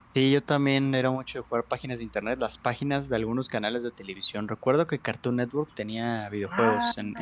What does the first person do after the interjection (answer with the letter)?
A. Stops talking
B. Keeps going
A